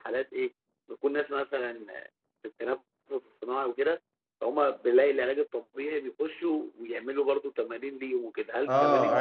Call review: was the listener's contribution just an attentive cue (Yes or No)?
No